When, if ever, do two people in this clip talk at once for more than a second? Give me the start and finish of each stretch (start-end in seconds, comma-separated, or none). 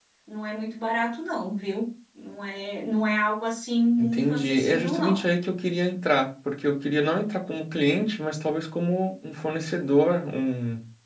4.0-5.2